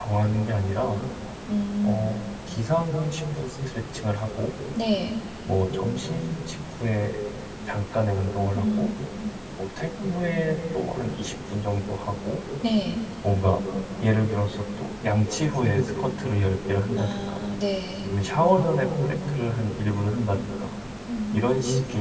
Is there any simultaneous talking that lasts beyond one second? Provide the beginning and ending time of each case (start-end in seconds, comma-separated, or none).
none